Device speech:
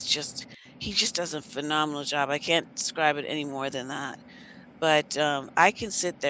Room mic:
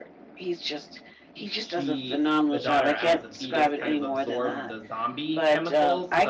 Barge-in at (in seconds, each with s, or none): 1.6 s